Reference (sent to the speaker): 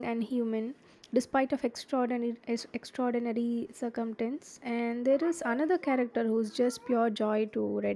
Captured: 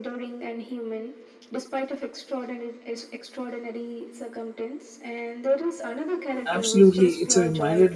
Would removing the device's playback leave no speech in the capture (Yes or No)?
No